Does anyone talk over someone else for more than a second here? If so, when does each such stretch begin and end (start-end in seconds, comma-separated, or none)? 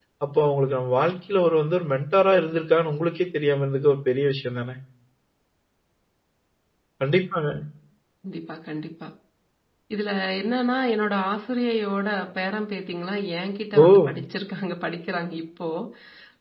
none